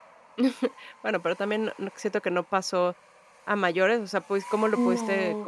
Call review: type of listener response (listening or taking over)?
listening